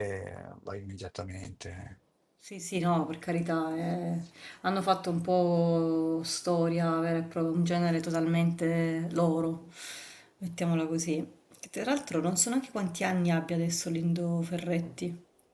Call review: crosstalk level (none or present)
none